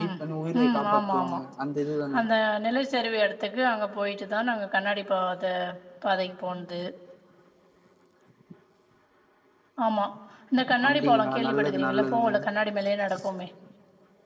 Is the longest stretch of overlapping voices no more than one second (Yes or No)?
No